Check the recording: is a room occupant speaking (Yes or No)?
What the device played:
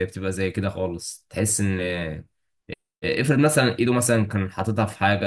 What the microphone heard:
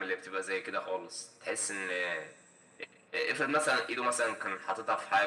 No